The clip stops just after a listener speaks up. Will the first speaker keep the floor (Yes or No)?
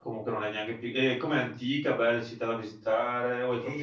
No